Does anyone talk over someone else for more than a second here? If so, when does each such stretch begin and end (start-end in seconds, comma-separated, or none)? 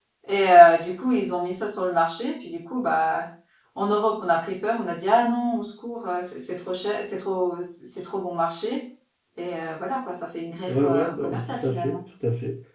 10.7-12.0